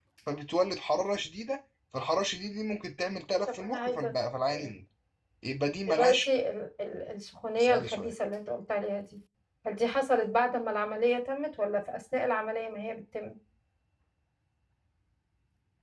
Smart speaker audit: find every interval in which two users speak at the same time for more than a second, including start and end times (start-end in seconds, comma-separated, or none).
3.5-4.7